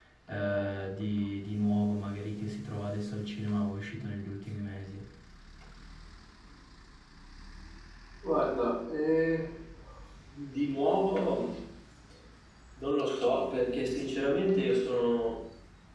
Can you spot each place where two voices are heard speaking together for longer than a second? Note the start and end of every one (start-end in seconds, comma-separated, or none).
none